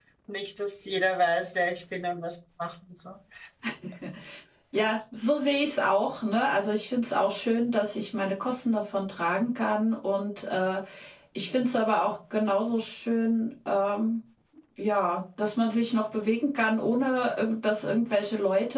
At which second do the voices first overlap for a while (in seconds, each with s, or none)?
none